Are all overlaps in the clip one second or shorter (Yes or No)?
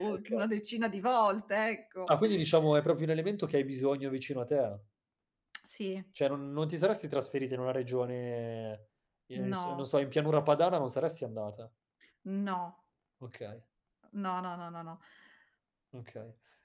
Yes